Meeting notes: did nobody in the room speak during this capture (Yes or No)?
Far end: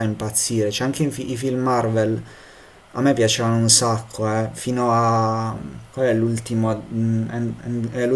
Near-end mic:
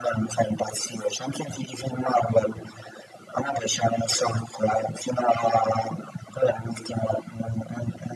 Yes